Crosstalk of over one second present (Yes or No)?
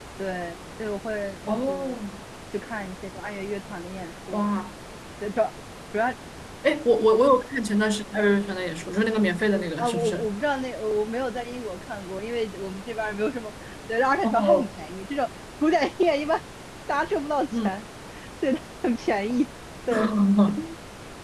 No